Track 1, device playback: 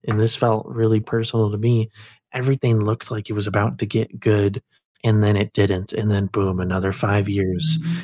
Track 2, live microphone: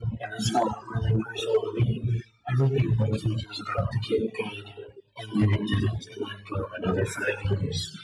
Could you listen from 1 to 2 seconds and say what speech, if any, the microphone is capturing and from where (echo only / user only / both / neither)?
echo only